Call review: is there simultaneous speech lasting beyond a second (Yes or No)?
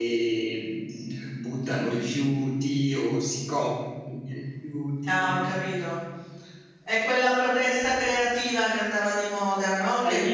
No